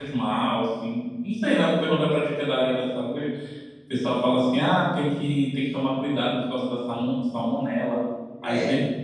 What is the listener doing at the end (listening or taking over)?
listening